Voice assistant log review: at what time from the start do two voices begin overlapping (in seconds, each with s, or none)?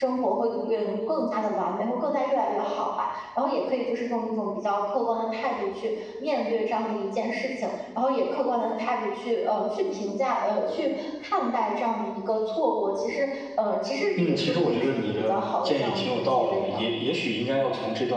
14.2 s